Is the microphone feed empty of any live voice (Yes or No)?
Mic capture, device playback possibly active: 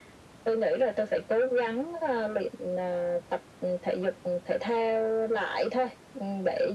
Yes